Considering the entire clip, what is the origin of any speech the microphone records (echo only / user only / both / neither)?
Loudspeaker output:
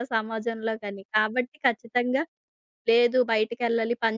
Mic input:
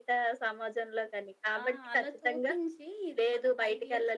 both